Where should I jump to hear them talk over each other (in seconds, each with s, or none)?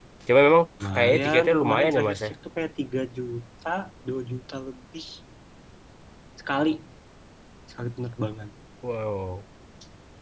0.9 s